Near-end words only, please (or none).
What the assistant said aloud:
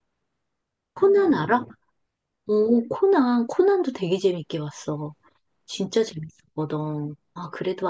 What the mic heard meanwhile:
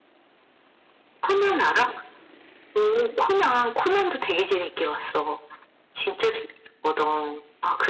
none